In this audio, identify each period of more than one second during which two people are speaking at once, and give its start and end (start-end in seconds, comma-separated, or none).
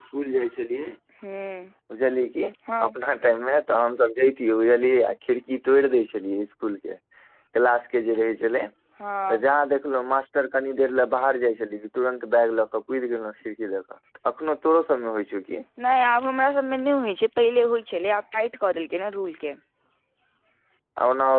none